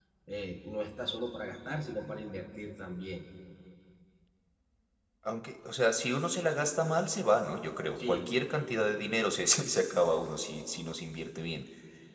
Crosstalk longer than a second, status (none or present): none